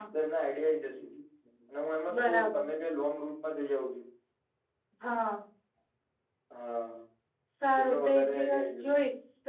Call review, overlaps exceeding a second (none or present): present